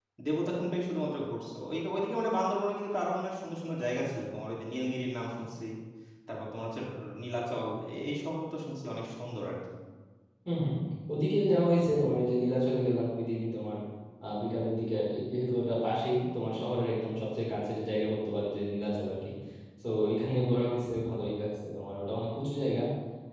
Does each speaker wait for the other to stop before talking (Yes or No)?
Yes